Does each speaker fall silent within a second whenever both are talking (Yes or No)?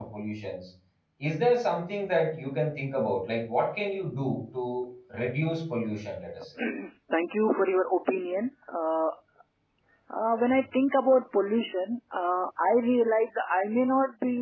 Yes